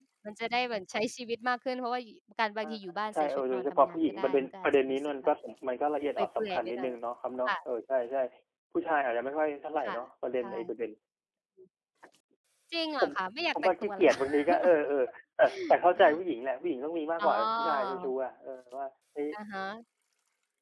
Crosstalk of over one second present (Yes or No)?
Yes